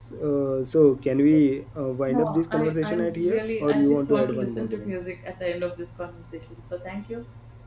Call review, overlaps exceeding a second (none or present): present